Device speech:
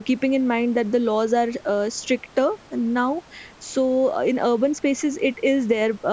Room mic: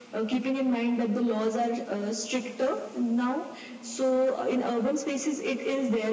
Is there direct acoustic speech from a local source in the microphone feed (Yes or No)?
No